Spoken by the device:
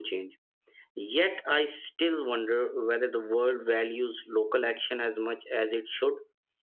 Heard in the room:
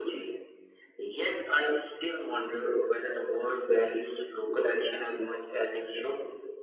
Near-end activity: none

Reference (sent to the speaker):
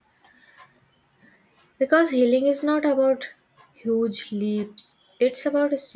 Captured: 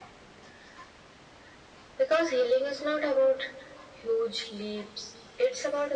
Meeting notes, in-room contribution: none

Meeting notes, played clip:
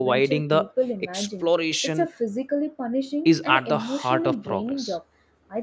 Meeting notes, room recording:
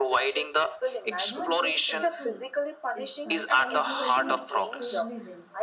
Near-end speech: present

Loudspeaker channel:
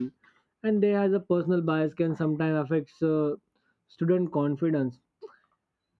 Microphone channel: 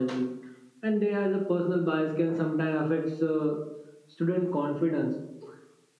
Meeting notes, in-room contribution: none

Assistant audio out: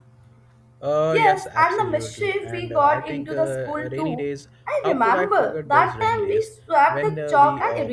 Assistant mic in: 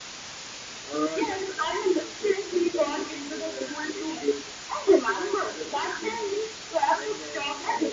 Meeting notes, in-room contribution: none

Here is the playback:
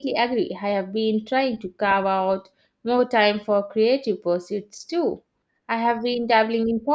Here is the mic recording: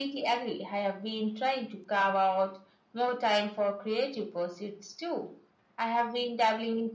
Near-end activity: none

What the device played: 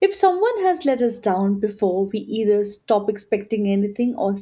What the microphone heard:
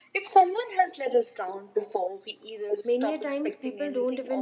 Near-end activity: present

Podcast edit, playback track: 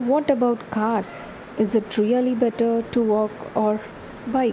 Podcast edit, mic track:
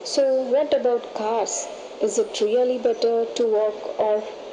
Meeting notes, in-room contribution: none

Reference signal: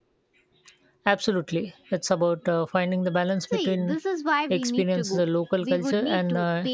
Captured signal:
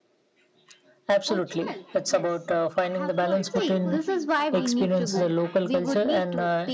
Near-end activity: present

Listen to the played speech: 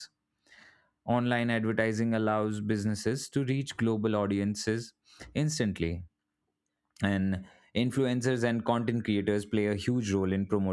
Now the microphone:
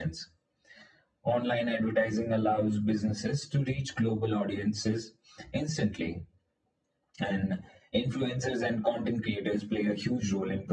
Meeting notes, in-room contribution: none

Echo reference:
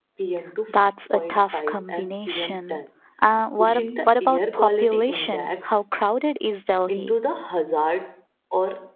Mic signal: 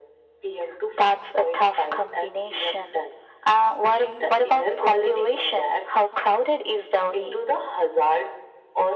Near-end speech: none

